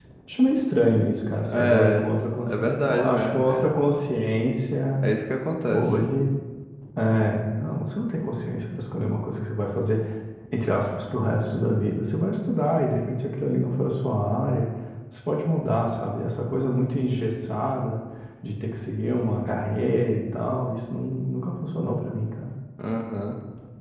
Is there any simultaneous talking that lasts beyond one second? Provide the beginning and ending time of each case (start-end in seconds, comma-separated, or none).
1.5-3.8